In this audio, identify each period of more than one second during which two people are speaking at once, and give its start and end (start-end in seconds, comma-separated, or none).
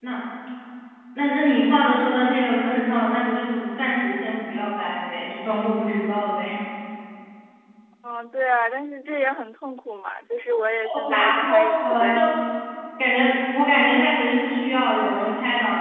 10.8-12.1